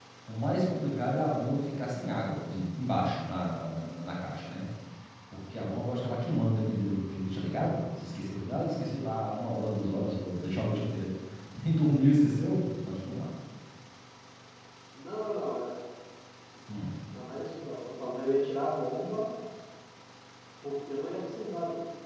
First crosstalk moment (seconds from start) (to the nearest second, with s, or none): none